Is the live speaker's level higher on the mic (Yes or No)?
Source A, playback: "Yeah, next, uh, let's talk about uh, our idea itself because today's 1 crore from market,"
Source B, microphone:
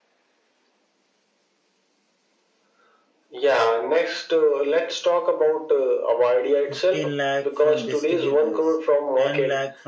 No